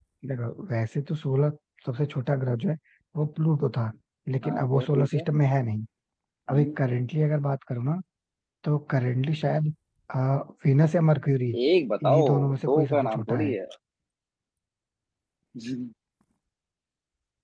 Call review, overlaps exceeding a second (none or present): present